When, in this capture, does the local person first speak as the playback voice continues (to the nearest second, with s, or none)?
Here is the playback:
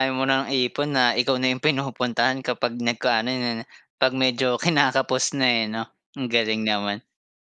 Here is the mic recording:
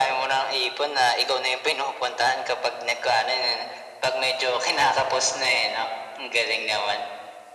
none